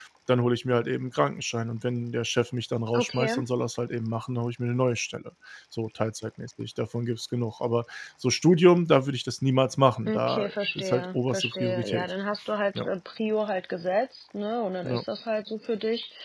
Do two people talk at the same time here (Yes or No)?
Yes